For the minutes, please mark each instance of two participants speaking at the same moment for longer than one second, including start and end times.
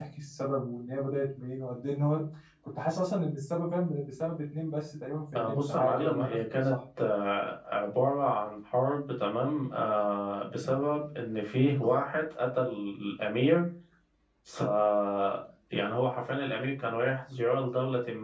5.4-6.7

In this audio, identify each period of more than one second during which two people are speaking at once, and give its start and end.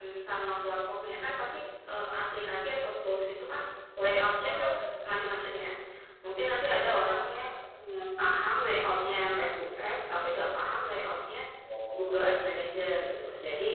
11.9-13.2

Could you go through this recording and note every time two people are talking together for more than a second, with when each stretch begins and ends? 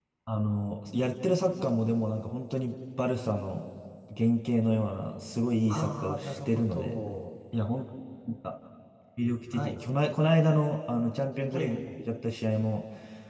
5.7-7.0

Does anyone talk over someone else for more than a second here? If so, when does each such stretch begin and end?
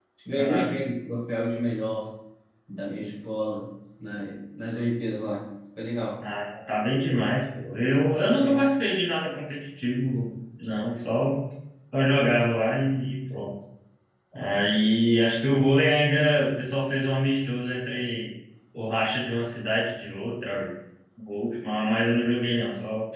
none

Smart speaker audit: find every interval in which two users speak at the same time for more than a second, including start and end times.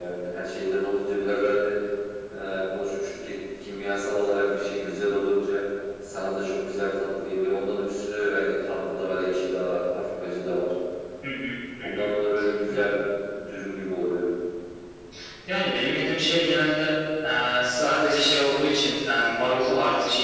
none

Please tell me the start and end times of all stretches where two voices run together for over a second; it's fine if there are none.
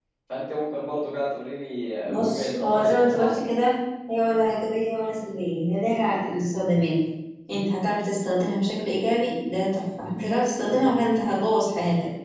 2.1-3.5

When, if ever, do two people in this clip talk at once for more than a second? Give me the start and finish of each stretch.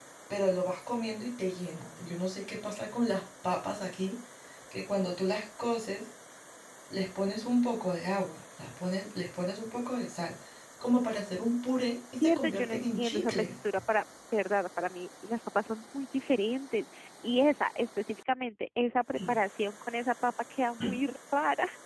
12.2-13.5

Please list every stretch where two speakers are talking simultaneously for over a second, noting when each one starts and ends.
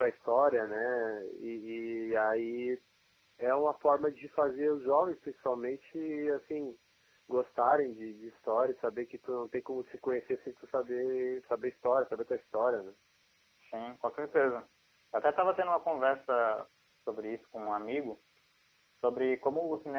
none

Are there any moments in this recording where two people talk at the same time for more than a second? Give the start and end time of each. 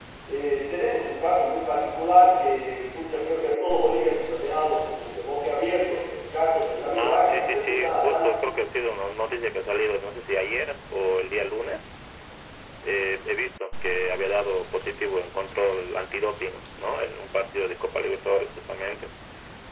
6.9-8.4

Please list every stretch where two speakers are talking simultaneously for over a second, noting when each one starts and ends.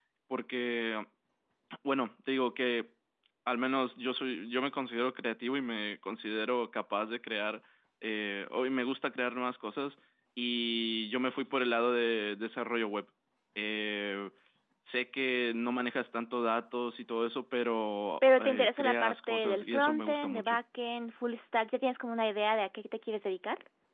18.3-20.6

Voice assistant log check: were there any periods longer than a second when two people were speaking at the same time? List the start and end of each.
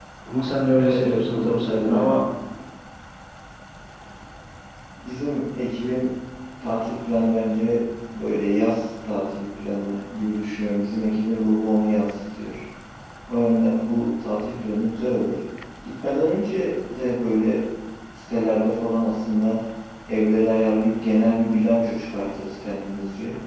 0.8-2.2

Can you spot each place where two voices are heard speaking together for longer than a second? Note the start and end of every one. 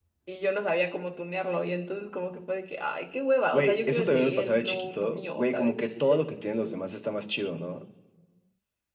3.5-5.9

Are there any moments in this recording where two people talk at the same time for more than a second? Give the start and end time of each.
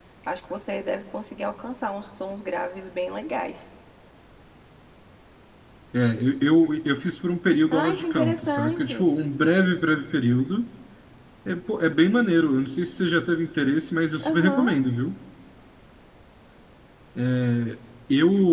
7.7-9.1

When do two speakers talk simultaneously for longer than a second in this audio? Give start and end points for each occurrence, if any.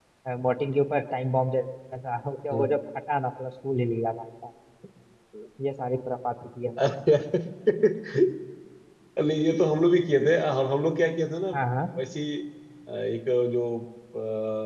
none

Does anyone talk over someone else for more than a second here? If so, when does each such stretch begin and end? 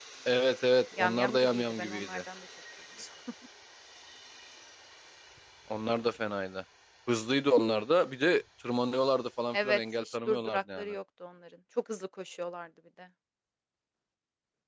1.0-2.2, 9.5-10.9

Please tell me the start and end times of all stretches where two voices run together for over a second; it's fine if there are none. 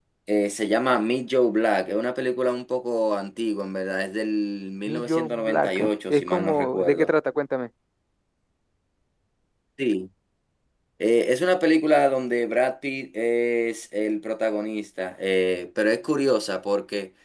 4.9-7.1

